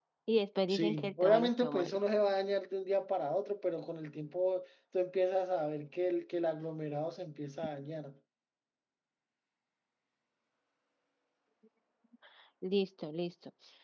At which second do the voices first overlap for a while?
0.7 s

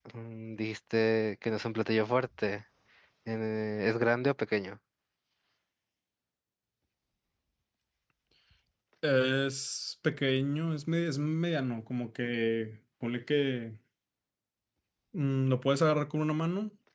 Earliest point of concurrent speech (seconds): none

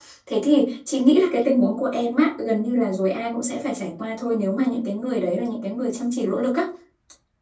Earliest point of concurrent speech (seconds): none

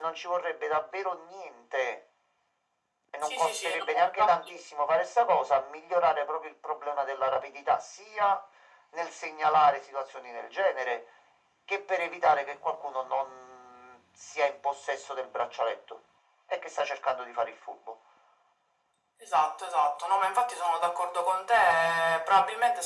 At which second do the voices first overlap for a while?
3.2 s

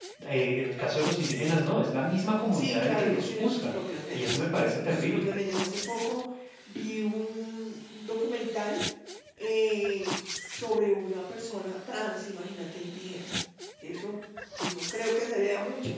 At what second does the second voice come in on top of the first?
2.5 s

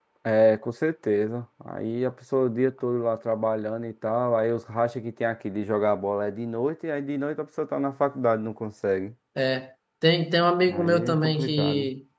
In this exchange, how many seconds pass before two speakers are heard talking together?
10.7 s

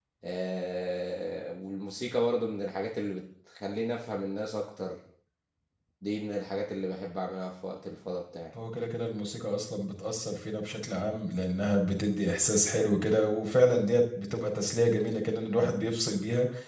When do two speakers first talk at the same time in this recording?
none

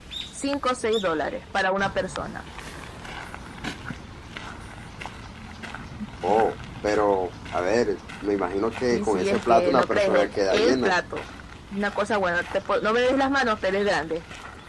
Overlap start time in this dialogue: 8.9 s

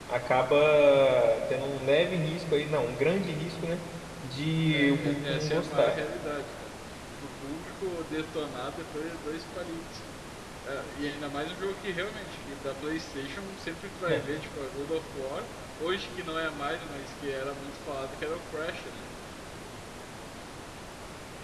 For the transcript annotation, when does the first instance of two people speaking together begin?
4.7 s

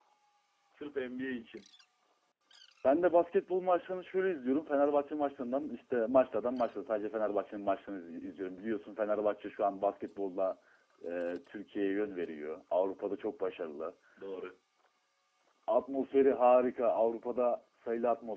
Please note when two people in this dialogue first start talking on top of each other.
none

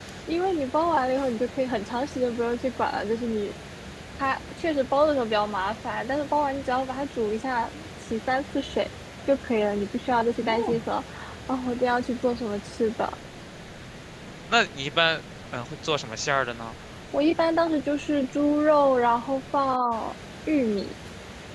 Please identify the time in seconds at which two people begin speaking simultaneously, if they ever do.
none

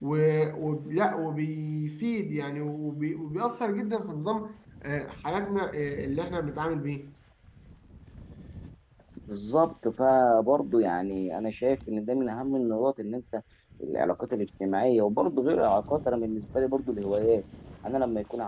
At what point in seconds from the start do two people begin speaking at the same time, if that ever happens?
none

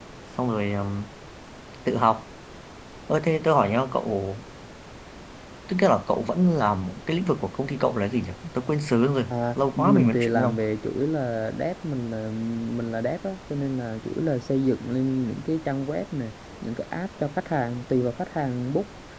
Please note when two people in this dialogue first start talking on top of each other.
9.3 s

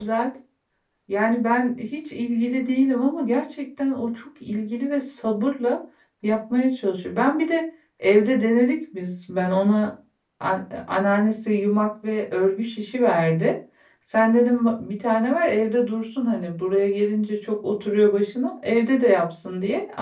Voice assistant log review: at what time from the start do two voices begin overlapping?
none

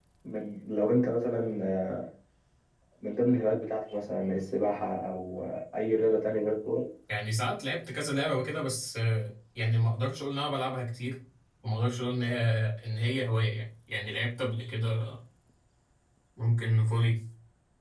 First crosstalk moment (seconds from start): none

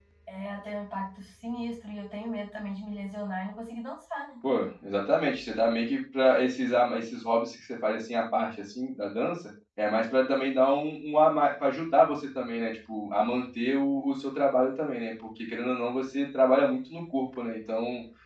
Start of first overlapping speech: none

